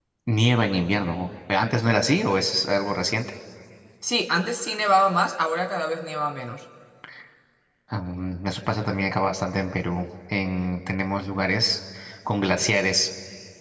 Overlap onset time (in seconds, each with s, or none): none